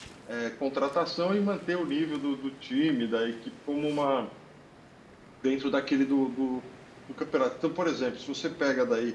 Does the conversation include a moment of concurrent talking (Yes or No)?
No